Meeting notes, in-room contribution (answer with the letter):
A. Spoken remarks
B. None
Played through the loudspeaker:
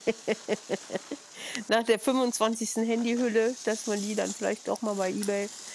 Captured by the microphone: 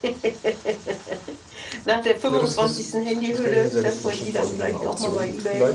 A